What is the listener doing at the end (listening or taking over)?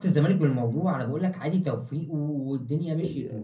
taking over